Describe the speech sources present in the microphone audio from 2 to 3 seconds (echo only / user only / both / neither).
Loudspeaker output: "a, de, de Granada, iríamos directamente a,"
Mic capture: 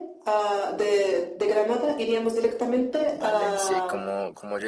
echo only